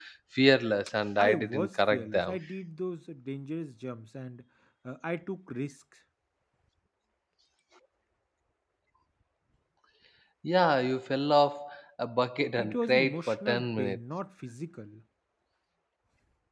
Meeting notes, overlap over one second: present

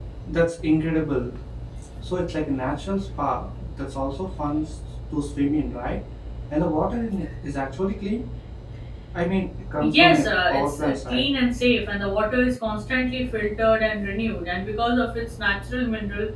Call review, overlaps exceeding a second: present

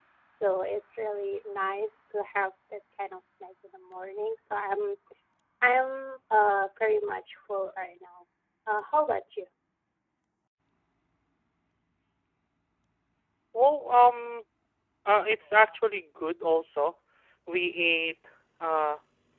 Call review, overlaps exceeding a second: none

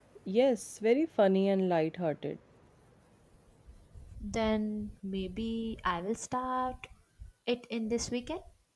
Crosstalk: none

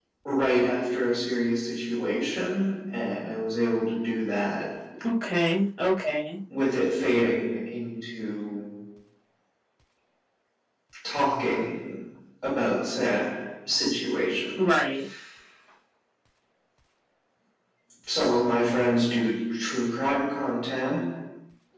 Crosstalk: none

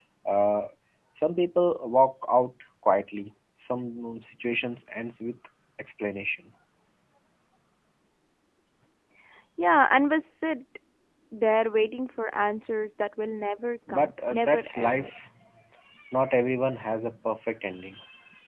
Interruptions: present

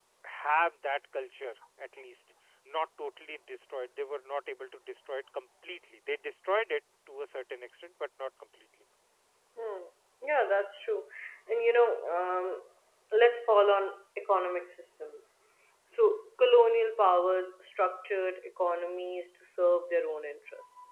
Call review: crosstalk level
none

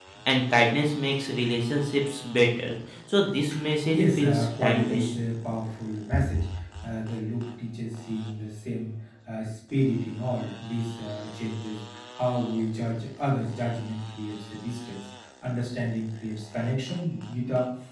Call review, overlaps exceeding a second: present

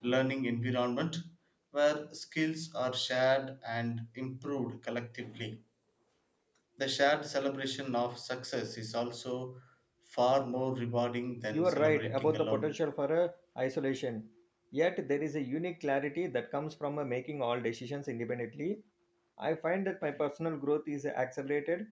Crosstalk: present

